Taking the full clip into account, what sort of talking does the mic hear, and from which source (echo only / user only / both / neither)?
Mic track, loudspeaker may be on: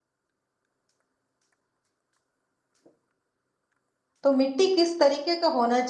user only